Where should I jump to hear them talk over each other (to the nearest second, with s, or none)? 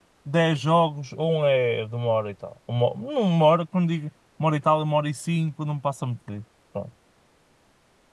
none